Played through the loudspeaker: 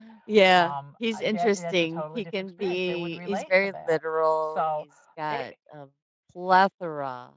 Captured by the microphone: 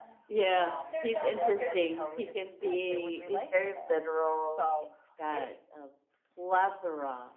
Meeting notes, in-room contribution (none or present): present